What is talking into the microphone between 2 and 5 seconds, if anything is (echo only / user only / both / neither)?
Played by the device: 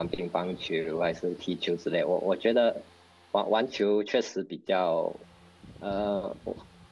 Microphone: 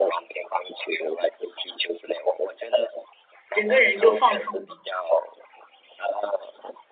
both